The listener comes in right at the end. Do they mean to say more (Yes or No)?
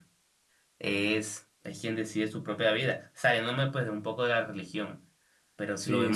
No